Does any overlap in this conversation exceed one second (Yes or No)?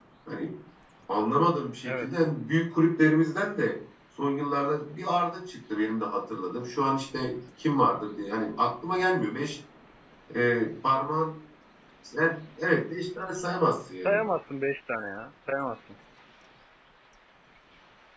No